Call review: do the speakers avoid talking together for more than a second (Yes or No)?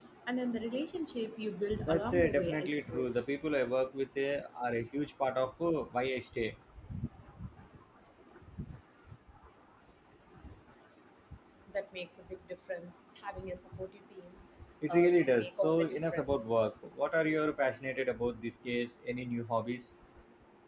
No